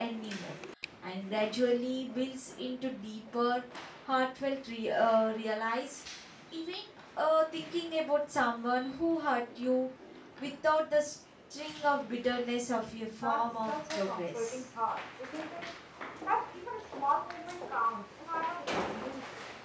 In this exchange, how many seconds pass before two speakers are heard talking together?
13.2 s

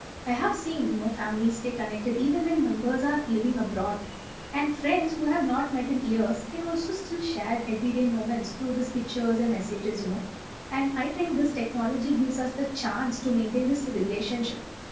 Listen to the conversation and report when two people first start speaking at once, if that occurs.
none

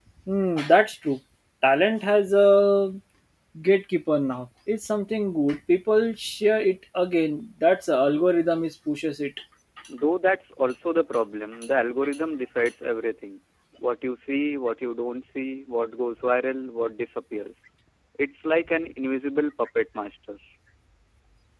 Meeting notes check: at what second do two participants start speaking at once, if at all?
none

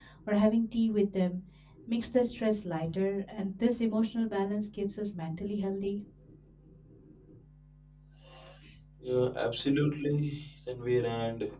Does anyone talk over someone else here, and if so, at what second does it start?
none

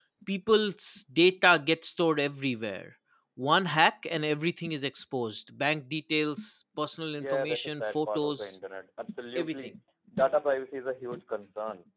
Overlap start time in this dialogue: 7.2 s

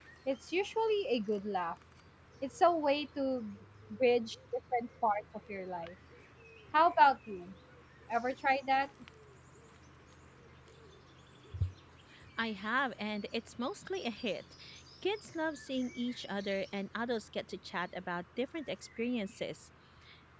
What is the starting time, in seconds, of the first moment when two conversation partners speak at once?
none

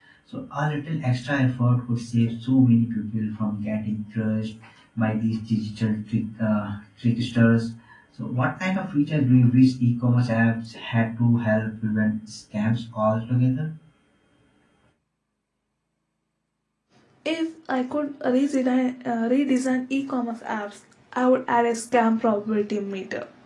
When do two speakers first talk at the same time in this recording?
none

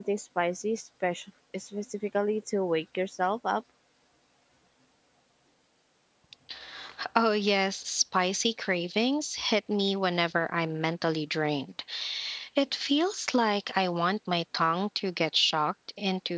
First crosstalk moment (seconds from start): none

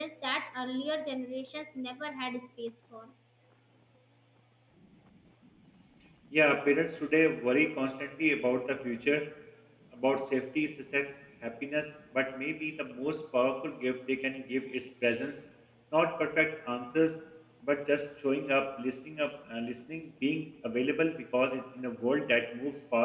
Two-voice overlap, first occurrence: none

